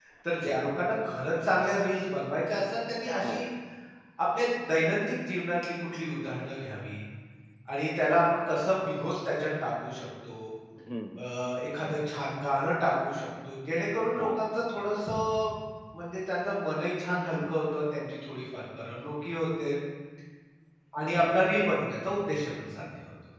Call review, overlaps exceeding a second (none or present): none